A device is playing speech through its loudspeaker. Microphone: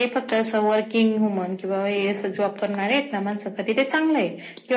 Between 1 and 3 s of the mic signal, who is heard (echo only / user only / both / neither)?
echo only